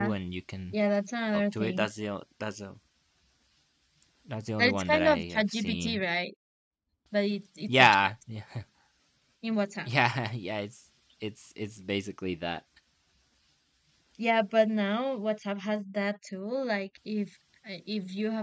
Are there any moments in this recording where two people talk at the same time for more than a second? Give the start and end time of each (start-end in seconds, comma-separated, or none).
4.6-6.0